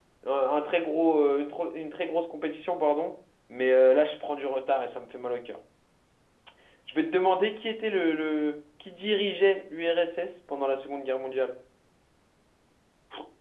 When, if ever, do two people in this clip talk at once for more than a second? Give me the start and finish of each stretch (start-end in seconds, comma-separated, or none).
none